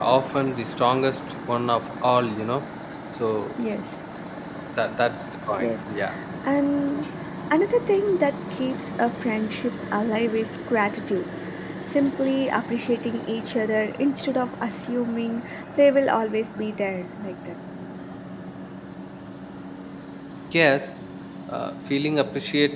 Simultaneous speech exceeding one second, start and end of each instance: none

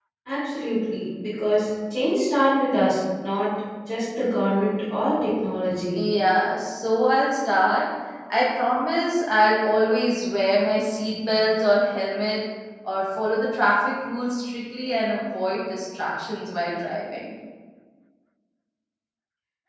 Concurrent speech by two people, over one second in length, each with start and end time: none

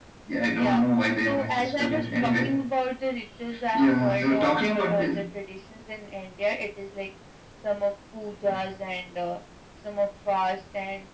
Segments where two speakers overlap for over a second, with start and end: 1.2-2.5, 3.7-5.1

